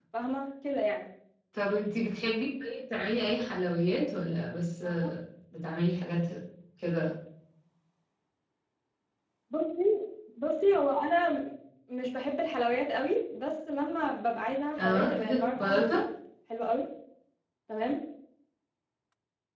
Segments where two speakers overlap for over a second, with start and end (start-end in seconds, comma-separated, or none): 14.8-16.0